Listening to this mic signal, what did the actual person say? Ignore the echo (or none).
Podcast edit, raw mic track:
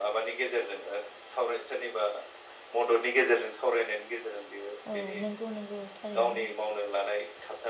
औ नंगौ नंगौ थारैनो